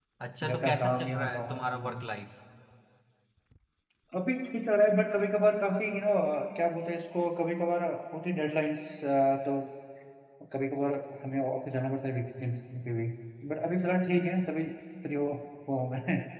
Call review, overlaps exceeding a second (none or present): present